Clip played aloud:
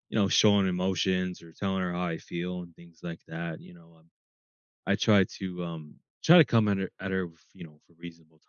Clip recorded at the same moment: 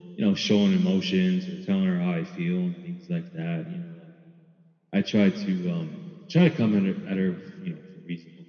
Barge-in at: none

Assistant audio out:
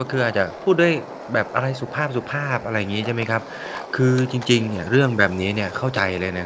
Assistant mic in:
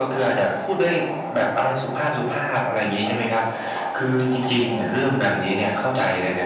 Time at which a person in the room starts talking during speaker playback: none

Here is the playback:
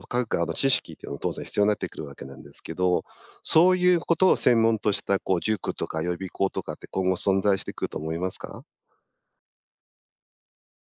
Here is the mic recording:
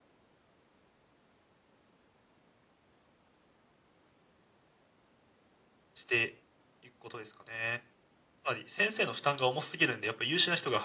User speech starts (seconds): 5.9 s

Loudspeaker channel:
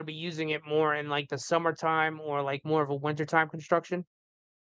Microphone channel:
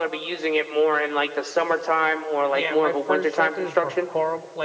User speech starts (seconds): 2.5 s

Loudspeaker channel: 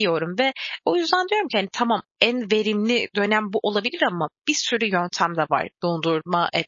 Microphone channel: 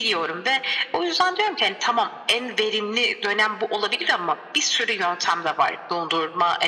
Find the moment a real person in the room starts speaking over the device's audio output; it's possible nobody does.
none

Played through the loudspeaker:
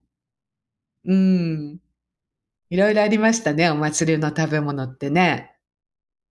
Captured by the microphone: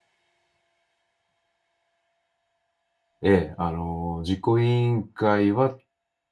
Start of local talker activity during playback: 3.2 s

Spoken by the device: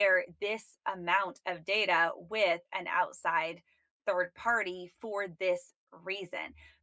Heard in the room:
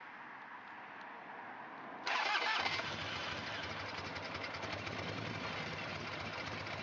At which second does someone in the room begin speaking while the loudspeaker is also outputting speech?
none

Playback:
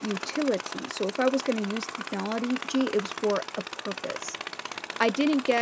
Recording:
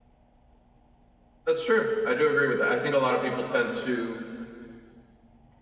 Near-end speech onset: 1.5 s

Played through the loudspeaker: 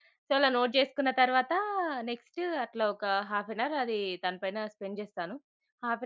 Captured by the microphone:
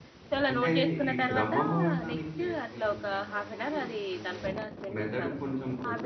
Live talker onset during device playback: 0.5 s

